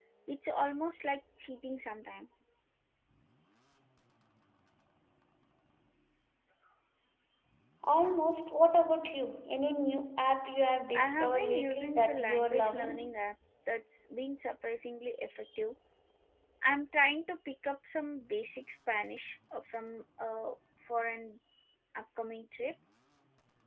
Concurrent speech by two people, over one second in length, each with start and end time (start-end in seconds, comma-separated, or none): 10.9-13.1